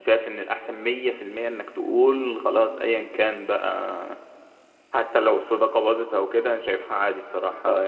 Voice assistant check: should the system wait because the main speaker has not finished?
Yes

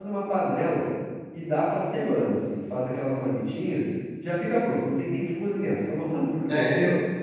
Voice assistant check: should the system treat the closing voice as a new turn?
Yes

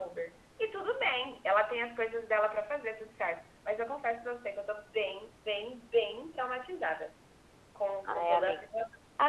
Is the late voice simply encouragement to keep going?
No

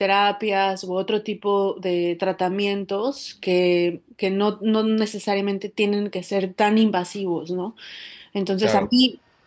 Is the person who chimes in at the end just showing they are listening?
Yes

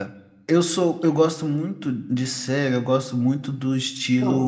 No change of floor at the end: Yes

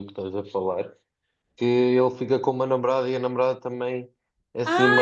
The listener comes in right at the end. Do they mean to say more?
Yes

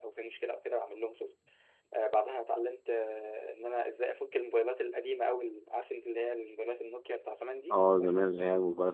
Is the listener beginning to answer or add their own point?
Yes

